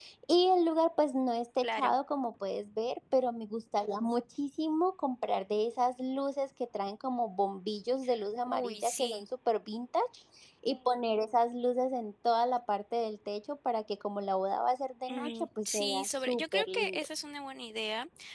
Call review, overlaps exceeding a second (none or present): present